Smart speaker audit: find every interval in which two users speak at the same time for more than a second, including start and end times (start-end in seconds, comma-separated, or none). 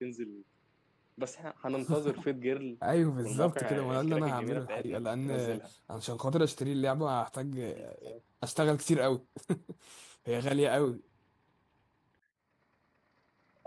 3.2-5.6